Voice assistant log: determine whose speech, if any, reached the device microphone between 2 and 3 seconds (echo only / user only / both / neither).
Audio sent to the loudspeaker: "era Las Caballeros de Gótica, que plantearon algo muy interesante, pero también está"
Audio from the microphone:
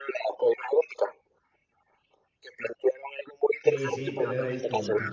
echo only